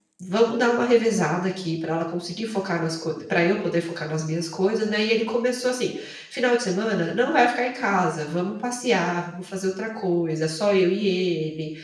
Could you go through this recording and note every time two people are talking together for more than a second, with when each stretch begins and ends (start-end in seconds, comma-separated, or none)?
none